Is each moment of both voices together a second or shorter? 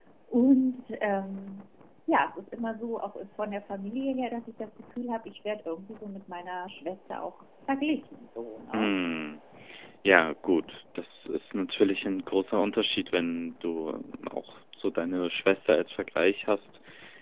Yes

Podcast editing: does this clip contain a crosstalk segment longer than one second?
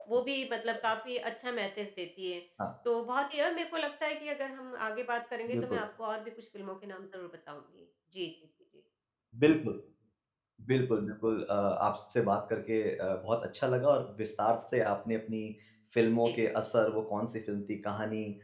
No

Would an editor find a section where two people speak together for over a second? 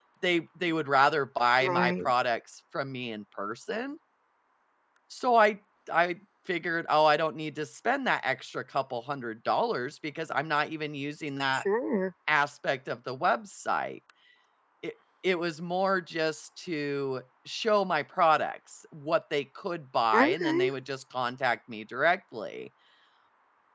No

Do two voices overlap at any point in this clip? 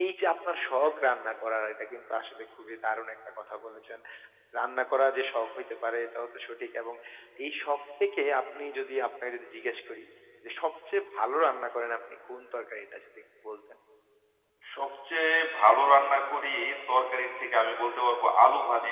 No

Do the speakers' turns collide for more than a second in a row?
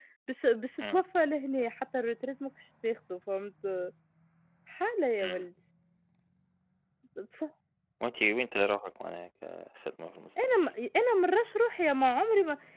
No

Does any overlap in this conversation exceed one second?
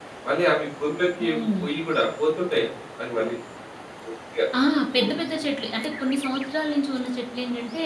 No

